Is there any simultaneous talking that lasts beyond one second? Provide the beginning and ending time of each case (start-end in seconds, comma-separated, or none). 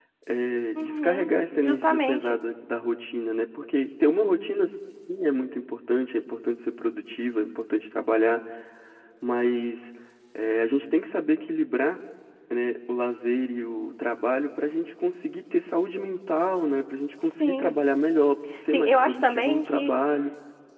0.8-2.4, 18.7-19.9